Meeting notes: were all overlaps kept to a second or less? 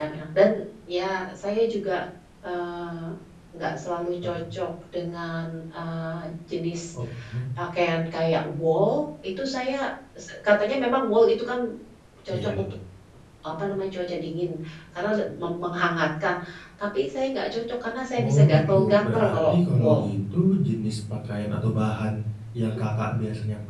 No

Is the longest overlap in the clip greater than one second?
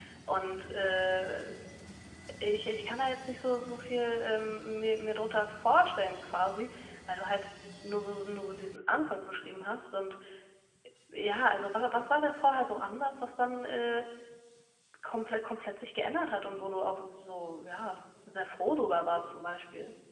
No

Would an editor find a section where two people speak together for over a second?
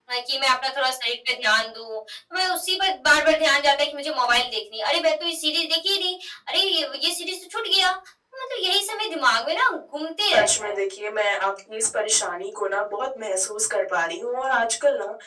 No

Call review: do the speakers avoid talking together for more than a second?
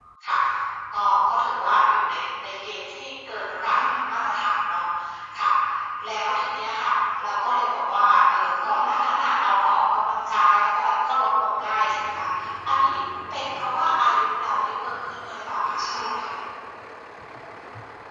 Yes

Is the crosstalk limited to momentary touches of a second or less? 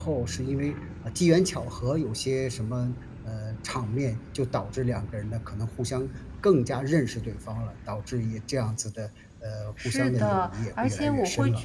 No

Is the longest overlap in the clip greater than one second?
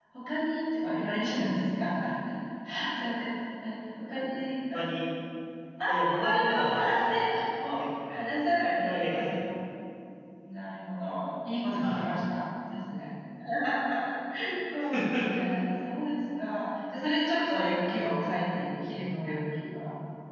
Yes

